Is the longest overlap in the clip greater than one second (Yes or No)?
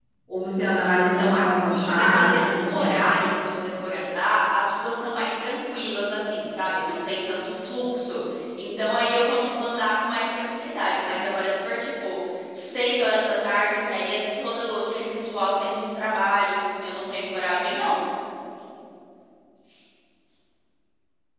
Yes